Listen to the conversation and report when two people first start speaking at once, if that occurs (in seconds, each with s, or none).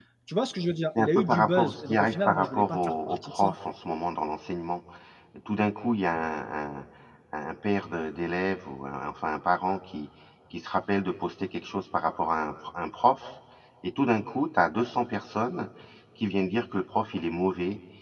1.0 s